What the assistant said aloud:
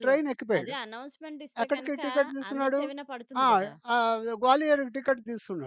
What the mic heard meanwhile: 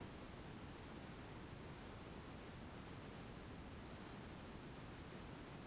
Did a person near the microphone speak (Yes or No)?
No